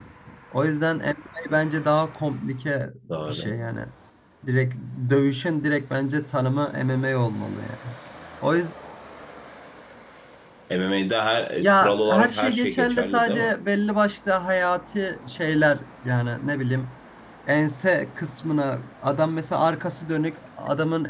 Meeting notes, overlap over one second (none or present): present